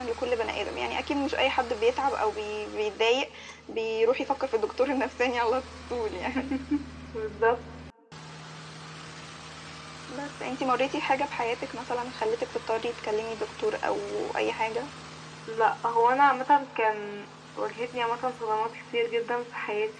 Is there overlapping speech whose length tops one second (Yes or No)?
No